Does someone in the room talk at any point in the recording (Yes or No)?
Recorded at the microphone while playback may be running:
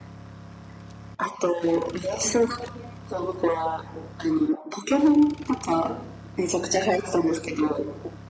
No